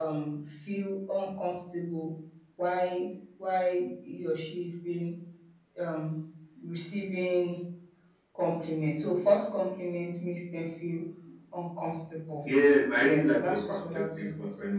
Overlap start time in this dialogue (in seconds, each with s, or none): 13.0 s